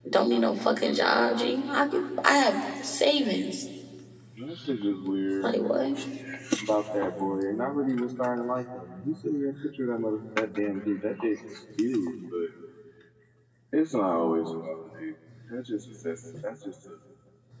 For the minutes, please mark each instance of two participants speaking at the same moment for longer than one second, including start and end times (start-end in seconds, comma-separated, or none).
none